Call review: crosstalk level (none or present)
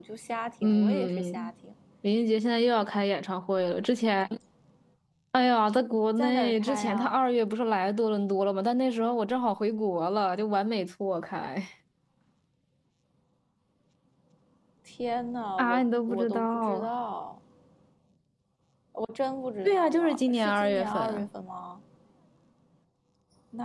present